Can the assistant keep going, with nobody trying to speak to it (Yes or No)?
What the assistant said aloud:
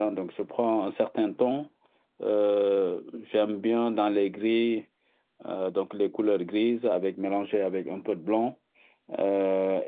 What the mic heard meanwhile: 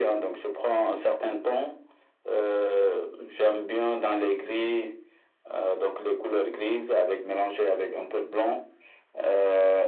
Yes